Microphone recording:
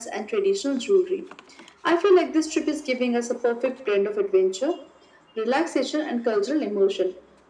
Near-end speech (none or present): none